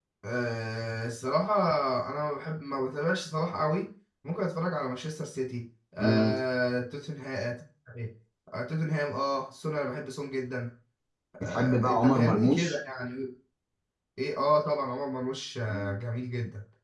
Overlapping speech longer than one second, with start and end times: 11.4-12.8

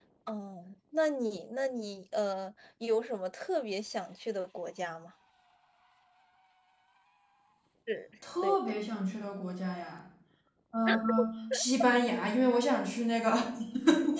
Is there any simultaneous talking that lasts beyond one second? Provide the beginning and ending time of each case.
none

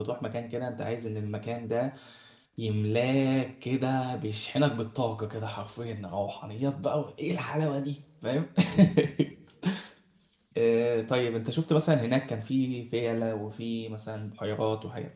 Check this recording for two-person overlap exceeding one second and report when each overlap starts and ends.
none

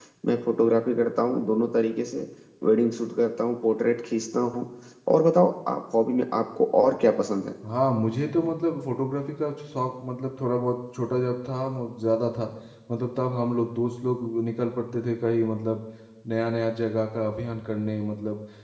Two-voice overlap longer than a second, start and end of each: none

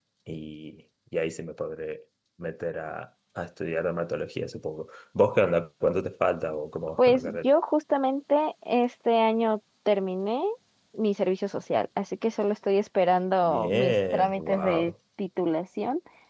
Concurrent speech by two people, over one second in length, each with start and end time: 13.4-14.9

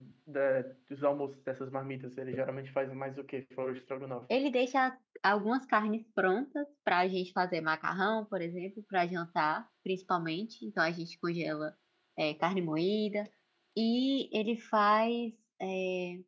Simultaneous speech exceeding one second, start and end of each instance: none

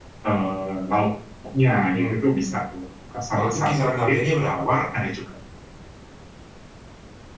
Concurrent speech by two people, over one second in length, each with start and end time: 3.3-4.6

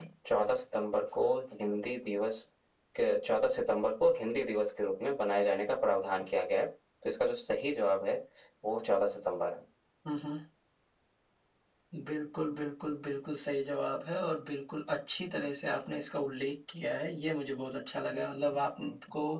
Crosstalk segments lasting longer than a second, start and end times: none

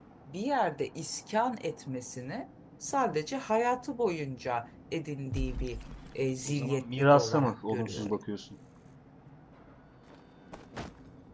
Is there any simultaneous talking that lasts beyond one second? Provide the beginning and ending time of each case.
6.5-8.2

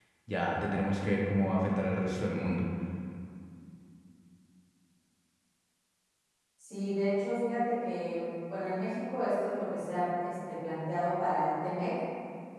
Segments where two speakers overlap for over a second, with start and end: none

